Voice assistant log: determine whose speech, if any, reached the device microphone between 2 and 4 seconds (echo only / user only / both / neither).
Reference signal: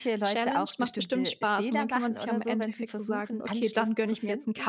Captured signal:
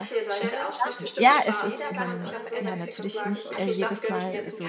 both